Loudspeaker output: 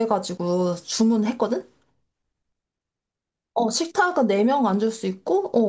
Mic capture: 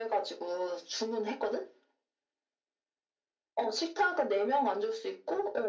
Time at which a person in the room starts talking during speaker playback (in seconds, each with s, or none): none